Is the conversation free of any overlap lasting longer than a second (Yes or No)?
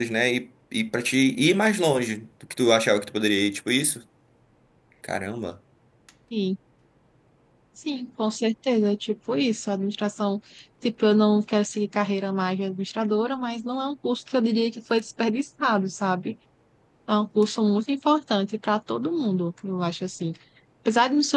Yes